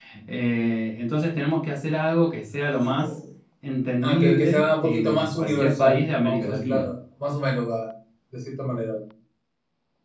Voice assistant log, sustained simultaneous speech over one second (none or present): present